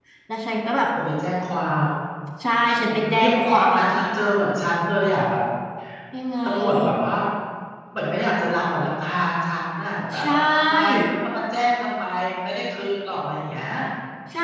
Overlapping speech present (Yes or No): Yes